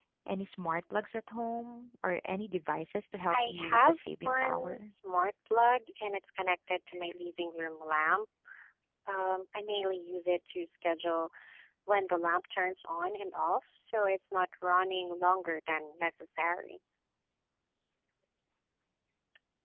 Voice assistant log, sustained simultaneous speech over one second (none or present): present